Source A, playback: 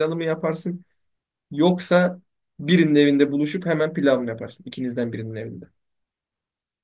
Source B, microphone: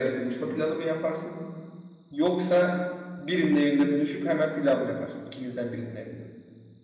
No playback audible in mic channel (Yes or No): No